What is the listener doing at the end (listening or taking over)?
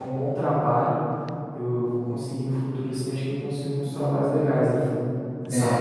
taking over